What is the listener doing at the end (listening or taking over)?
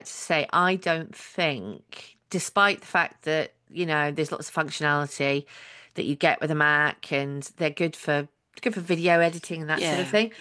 listening